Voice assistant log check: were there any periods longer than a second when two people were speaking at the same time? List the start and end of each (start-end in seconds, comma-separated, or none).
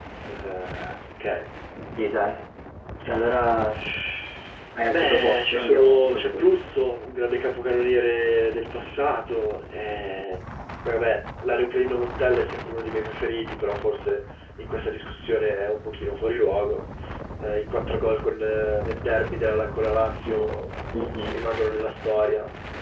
4.9-6.5